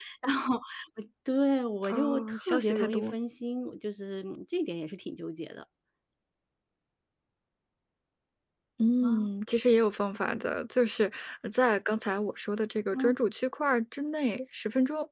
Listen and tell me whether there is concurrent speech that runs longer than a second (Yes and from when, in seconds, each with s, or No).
Yes, from 1.9 s